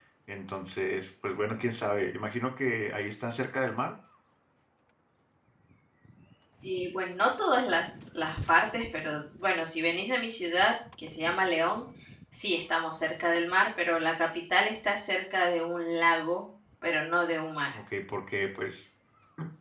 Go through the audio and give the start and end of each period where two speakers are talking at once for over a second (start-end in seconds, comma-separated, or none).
none